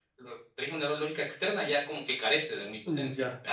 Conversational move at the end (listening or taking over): taking over